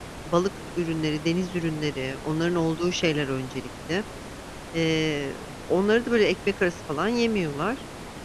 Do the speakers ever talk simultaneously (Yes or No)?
No